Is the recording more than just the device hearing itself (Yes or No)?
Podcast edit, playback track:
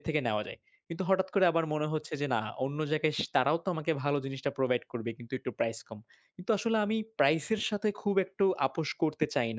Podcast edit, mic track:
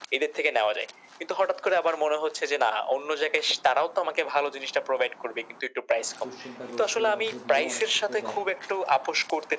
Yes